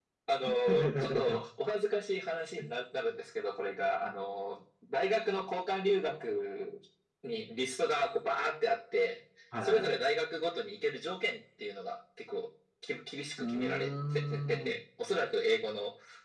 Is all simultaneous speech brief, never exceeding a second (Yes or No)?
No